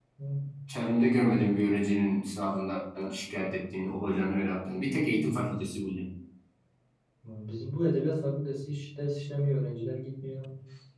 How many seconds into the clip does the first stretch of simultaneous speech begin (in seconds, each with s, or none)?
none